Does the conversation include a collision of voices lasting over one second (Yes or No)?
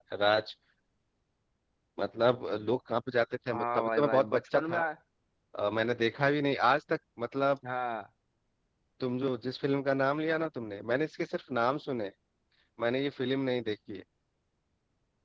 Yes